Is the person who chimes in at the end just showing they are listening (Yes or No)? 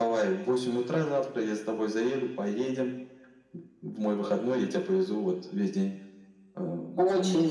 No